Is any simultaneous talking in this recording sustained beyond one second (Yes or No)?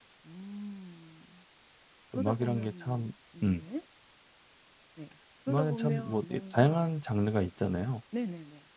Yes